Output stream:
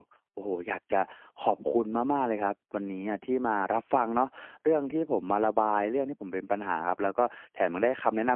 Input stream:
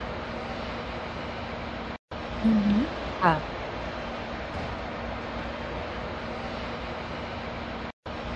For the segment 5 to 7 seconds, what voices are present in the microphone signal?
neither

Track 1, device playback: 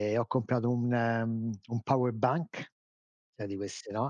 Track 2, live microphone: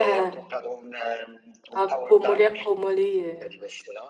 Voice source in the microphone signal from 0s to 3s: both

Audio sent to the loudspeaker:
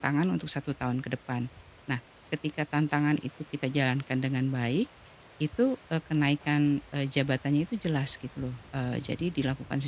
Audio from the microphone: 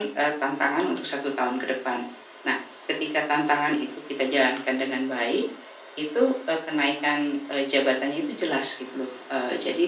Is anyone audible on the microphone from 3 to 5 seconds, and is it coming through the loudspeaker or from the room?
echo only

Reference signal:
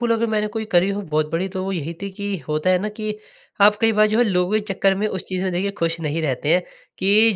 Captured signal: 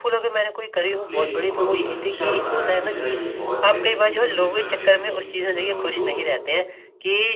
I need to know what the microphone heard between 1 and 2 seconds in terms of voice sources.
both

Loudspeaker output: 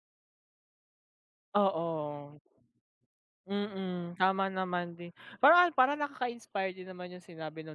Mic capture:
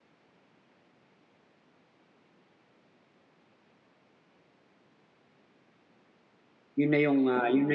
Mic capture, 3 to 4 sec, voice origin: neither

